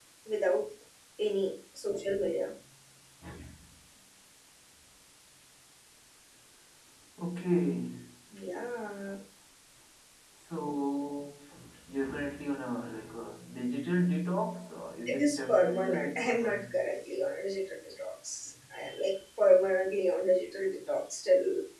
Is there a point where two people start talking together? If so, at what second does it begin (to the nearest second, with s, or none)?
15 s